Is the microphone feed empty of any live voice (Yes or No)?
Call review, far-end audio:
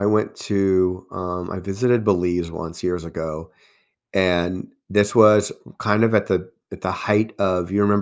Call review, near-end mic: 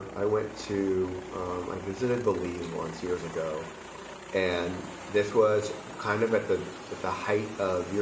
Yes